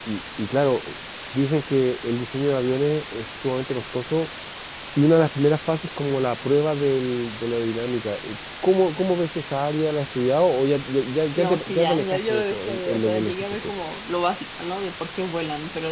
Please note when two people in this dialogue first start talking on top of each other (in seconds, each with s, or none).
11.3 s